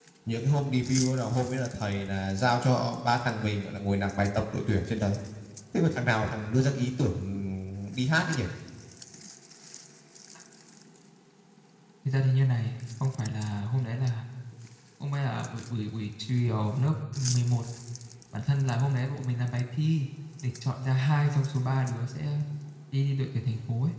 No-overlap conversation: Yes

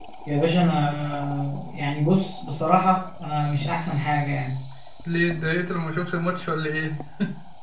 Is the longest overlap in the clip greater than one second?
No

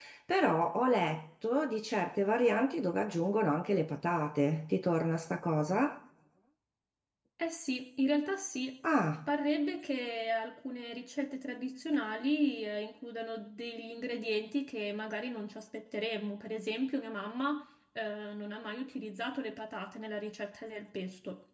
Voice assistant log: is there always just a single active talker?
Yes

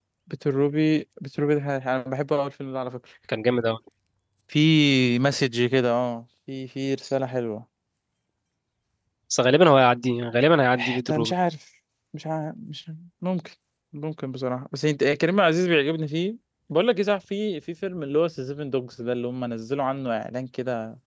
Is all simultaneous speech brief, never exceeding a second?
Yes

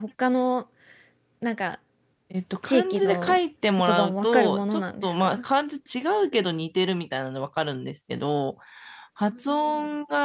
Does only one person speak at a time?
No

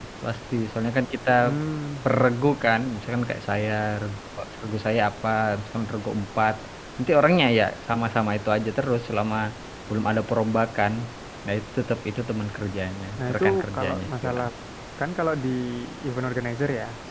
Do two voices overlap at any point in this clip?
Yes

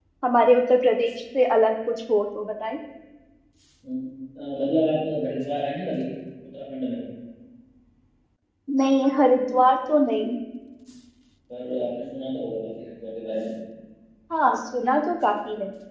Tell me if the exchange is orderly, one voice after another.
Yes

